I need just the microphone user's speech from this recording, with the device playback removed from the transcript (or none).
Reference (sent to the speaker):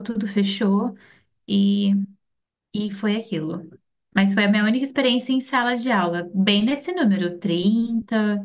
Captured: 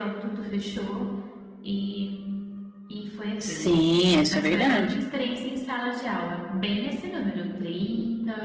Sim, isso é verdade.